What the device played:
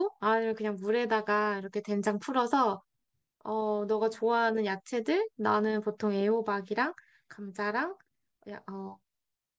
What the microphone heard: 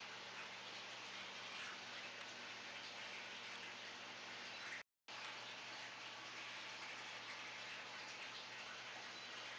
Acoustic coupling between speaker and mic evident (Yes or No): No